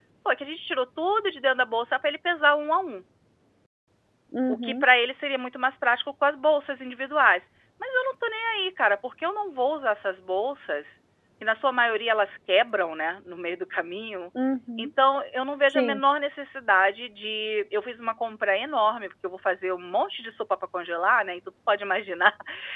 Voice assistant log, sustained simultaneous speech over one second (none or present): none